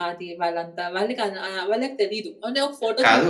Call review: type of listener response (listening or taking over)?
taking over